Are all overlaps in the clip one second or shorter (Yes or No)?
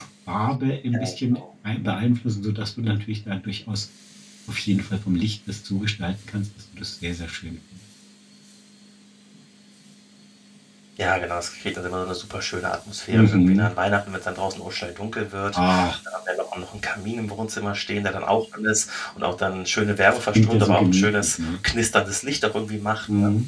No